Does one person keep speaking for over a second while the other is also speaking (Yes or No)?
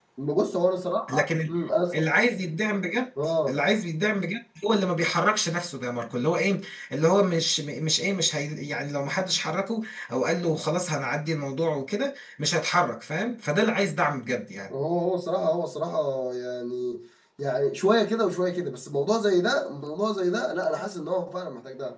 No